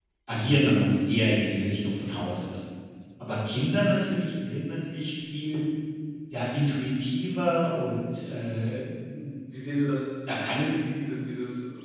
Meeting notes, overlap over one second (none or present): none